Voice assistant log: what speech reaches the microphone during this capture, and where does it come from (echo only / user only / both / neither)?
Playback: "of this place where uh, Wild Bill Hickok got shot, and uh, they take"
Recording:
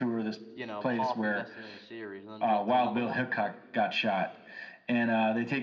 both